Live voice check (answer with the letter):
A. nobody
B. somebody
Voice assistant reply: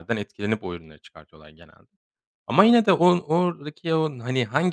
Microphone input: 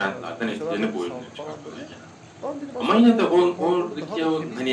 B